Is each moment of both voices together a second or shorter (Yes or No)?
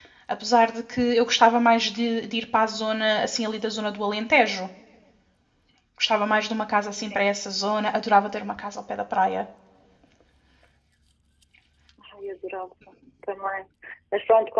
Yes